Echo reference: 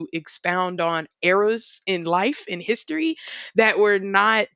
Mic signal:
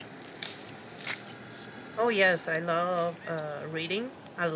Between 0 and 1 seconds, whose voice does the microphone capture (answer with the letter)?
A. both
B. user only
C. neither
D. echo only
C